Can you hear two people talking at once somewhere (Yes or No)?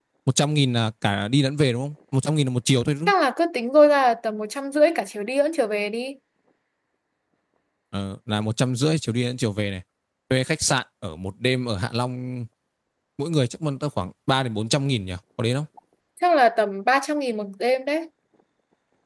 No